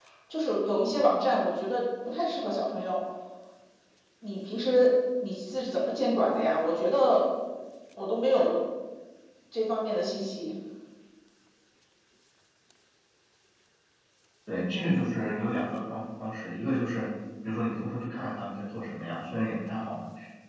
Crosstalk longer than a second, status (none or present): none